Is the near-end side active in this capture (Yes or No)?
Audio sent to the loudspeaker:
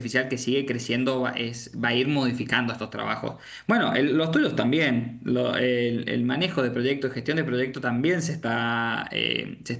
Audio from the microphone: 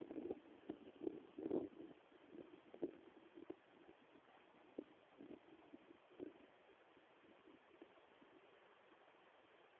No